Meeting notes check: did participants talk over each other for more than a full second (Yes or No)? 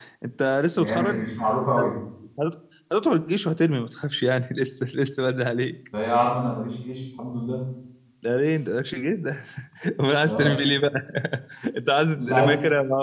No